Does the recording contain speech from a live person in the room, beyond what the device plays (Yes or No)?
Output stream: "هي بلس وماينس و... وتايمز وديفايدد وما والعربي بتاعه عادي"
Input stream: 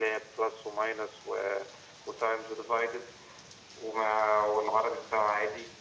No